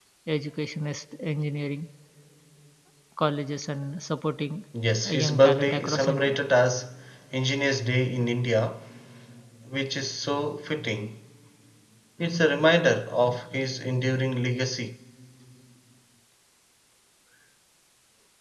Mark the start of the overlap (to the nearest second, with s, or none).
5 s